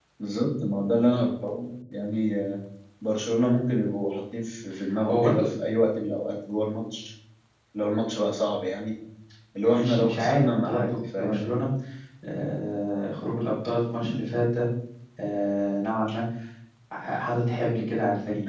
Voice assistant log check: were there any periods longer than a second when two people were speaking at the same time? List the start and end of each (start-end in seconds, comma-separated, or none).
9.6-11.4